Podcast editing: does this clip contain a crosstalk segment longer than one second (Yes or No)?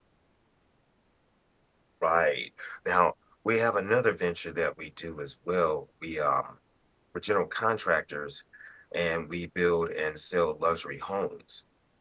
No